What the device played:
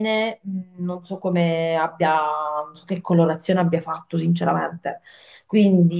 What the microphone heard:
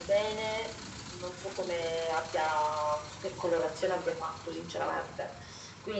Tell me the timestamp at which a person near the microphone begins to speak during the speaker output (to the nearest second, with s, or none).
none